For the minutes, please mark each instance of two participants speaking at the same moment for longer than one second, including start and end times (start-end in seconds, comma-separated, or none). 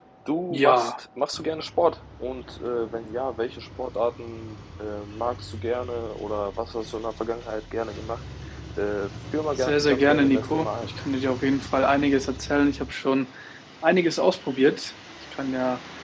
9.6-10.9